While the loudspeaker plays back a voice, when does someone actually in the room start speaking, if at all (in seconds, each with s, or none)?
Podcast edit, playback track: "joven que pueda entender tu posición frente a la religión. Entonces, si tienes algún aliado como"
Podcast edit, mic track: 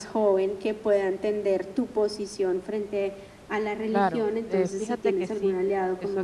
3.9 s